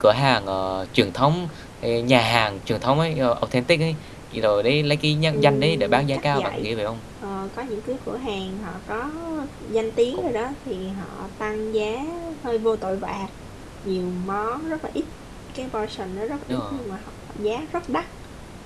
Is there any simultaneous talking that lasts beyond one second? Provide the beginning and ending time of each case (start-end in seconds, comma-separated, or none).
5.3-6.7